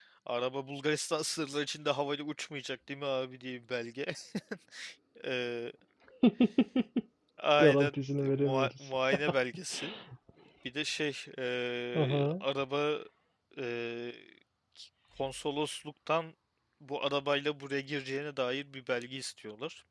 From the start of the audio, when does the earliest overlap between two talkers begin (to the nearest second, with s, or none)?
8 s